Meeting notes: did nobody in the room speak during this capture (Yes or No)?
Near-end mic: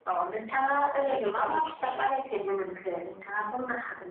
No